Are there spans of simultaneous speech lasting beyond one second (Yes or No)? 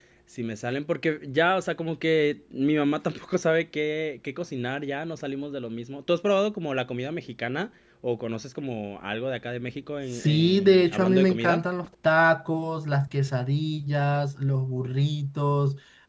Yes